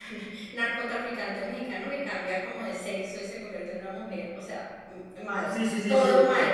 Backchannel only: No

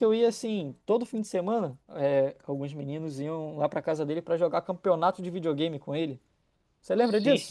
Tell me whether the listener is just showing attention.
No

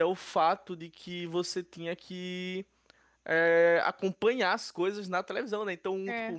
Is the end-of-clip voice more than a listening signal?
No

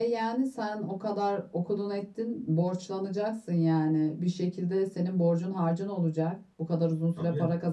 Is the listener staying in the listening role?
Yes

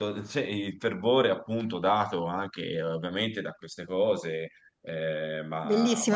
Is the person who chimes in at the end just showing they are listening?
No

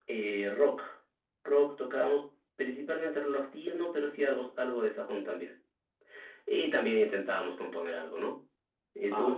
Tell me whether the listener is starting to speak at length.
Yes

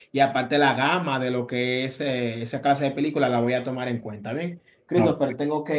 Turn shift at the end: No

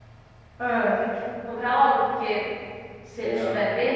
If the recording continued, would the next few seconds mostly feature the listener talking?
No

